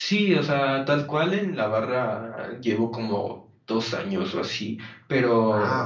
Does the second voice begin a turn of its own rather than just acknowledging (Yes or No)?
No